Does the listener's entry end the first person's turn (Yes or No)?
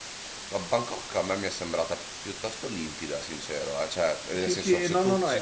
Yes